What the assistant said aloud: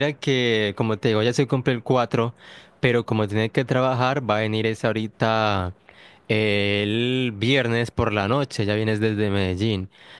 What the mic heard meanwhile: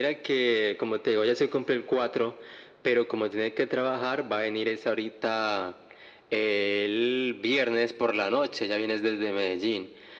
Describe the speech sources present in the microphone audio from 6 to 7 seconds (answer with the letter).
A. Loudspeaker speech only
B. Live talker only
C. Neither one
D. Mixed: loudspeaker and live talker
A